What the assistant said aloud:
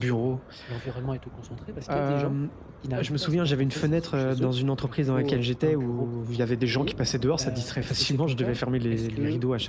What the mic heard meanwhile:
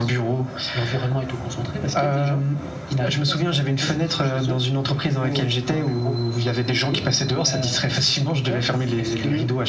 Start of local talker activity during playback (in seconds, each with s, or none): none